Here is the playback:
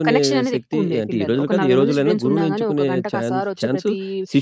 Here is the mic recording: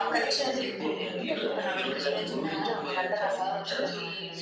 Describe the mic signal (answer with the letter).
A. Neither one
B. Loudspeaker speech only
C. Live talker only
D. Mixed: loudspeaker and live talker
D